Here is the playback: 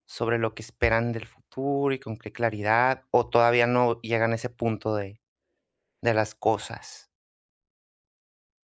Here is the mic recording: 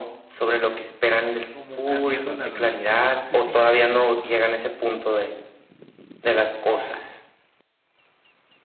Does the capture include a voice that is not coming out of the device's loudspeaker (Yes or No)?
Yes